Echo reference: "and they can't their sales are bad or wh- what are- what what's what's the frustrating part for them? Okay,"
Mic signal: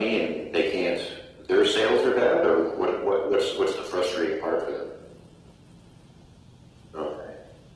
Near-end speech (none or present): none